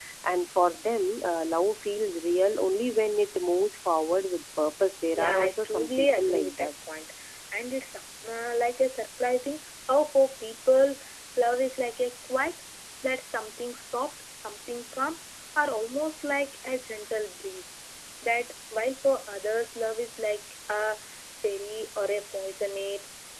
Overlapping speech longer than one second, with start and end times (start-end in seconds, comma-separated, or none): 5.1-6.7